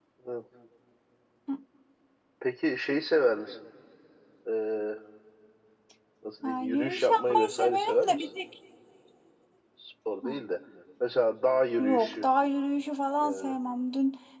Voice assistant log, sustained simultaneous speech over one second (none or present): present